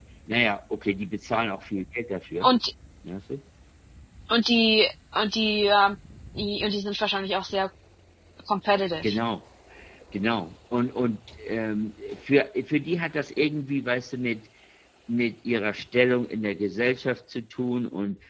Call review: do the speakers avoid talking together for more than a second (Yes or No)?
Yes